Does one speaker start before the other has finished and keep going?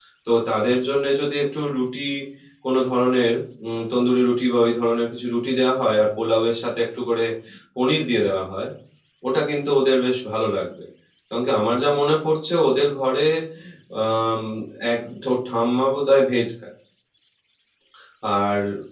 No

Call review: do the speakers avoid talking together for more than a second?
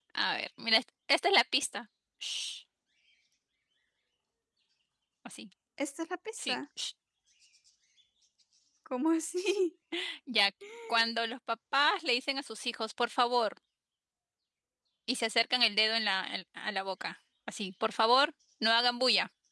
Yes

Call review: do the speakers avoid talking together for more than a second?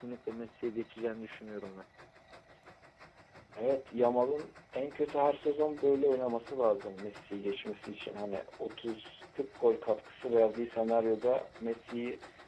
Yes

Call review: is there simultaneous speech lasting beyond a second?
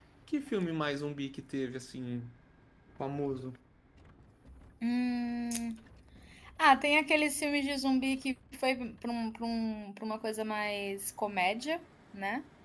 No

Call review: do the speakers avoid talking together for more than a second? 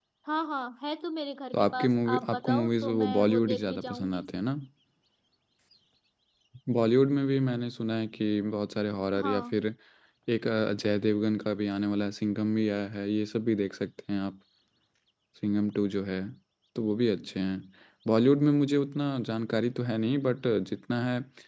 No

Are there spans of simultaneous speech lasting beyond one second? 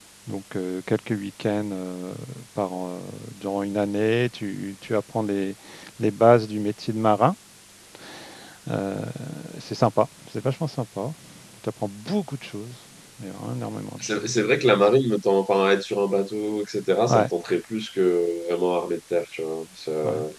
No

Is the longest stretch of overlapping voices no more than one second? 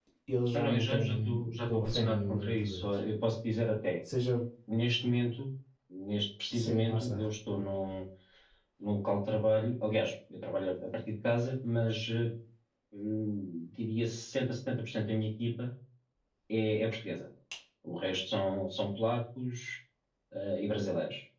No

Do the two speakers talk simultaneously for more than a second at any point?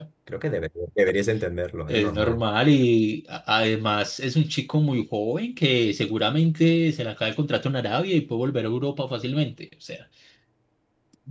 No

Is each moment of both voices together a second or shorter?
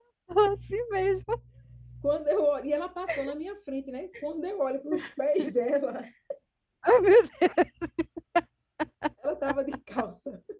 Yes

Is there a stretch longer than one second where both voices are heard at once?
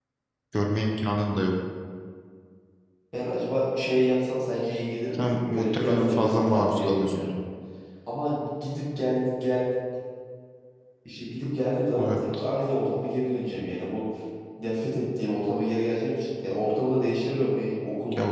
Yes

